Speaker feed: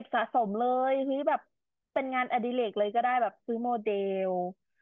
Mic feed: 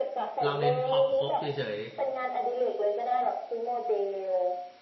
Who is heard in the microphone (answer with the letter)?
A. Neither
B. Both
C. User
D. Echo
B